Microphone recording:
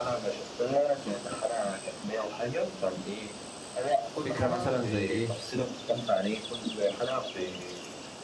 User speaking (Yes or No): Yes